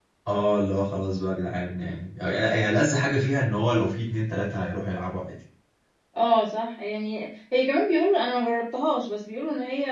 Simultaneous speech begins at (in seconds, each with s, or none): none